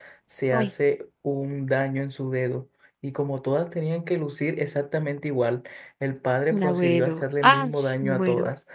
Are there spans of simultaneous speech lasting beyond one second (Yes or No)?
Yes